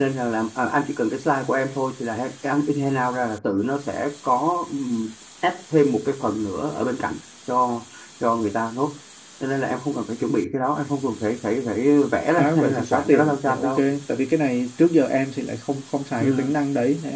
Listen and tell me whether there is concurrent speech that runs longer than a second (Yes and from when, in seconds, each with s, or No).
Yes, from 12.4 s